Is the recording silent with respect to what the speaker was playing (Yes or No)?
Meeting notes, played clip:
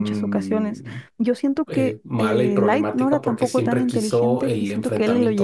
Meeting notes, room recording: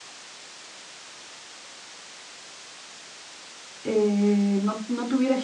Yes